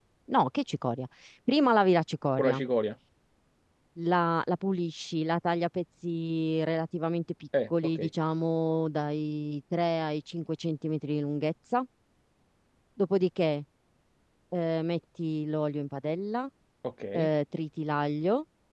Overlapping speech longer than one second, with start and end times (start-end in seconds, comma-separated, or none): none